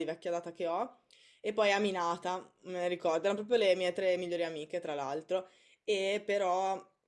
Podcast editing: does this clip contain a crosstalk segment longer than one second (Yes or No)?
No